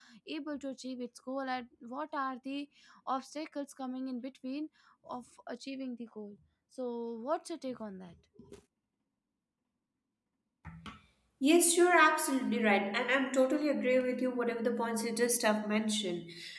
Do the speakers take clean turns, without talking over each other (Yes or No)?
Yes